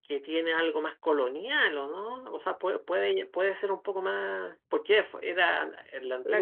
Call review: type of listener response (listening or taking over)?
taking over